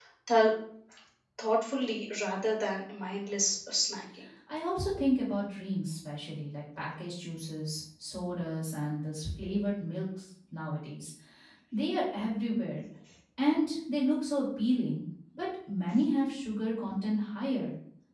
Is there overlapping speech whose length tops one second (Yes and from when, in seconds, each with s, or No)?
No